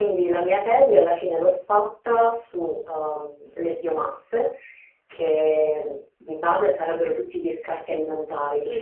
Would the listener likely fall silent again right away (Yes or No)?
Yes